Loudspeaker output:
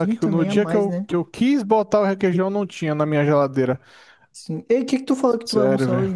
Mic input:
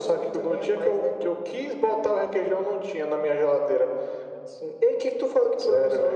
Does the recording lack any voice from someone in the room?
Yes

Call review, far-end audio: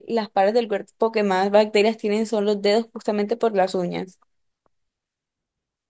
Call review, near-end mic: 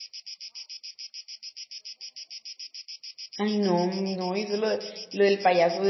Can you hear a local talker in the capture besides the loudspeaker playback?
Yes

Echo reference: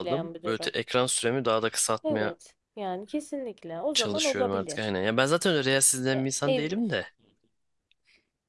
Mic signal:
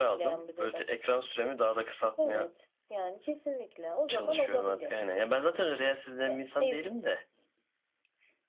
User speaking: No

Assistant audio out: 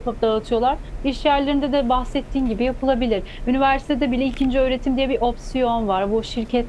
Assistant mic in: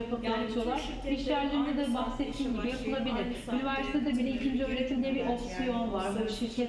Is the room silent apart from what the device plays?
No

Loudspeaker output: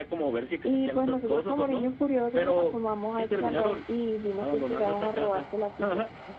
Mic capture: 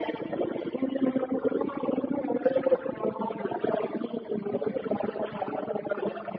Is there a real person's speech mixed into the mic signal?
No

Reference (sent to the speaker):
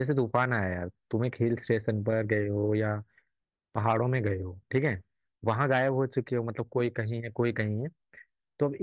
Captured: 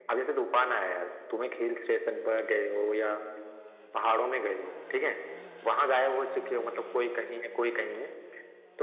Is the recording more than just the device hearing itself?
No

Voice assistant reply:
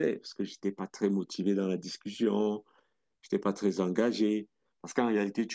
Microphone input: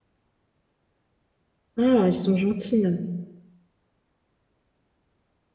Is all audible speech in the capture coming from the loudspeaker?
No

